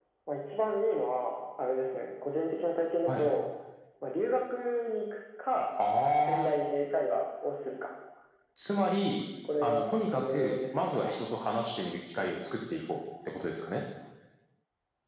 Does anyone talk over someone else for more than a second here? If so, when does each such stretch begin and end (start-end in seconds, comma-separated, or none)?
9.6-11.2